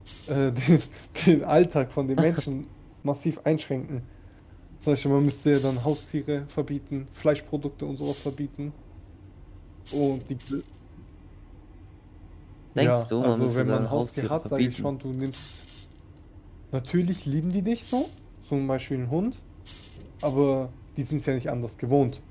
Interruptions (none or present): present